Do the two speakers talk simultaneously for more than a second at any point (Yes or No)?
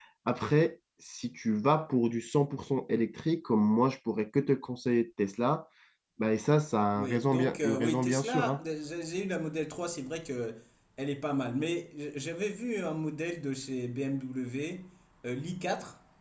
Yes